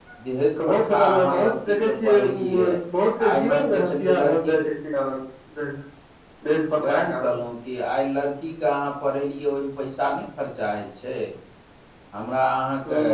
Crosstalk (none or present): present